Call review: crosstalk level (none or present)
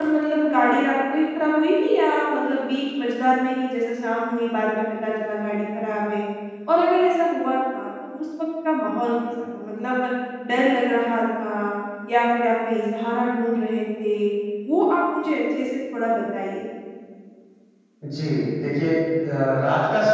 none